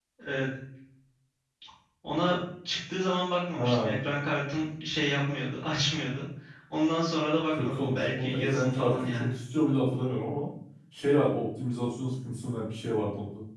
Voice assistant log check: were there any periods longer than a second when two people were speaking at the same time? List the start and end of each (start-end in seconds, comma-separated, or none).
7.6-9.3